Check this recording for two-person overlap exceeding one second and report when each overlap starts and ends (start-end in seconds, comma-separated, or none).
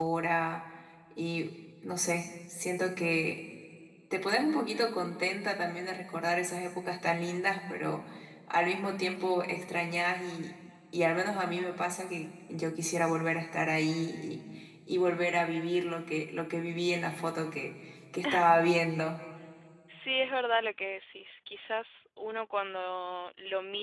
none